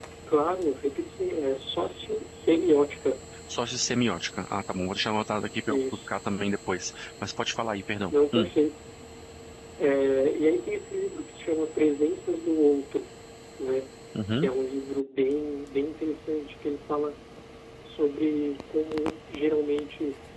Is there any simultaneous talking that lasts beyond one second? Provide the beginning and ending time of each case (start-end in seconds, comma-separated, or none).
none